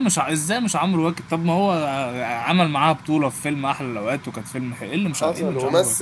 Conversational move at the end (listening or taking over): taking over